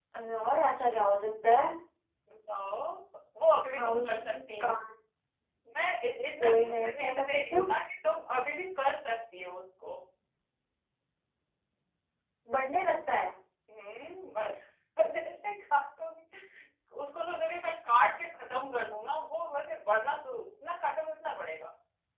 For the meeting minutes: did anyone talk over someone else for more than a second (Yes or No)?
Yes